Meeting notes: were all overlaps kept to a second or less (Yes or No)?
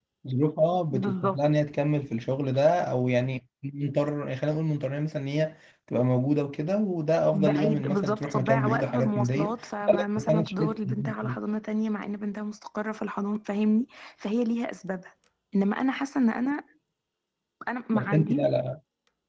No